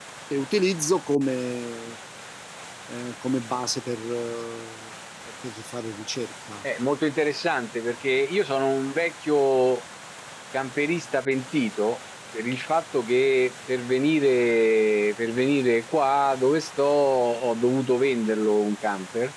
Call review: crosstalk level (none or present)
none